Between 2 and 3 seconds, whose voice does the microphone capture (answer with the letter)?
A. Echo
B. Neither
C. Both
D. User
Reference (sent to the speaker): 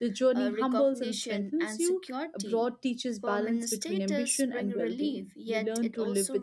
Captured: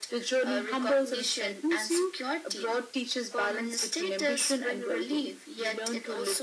A